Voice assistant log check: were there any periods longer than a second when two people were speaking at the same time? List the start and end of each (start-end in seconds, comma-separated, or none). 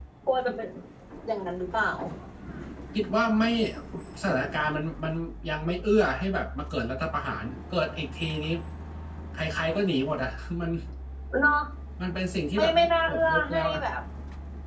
12.5-13.8